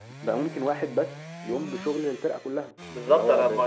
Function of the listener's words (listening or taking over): taking over